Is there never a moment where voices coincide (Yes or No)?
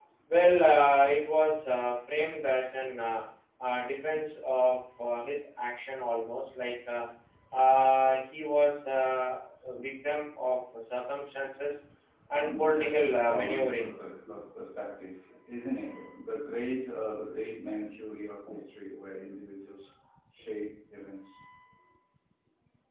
No